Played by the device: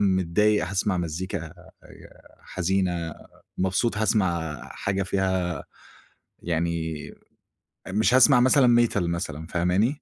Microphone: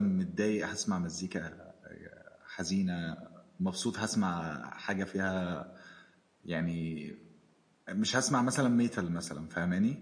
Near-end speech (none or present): none